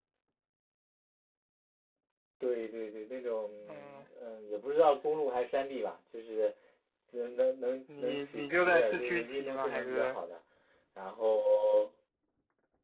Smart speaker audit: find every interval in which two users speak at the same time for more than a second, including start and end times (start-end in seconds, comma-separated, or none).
8.0-10.2